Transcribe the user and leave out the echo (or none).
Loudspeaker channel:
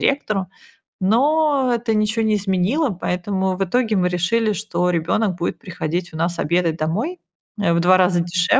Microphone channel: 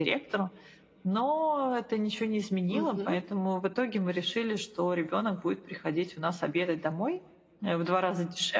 Мгм.